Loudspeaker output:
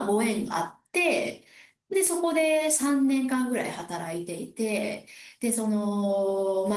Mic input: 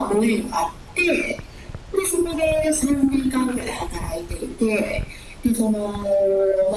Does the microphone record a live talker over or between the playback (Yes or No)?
No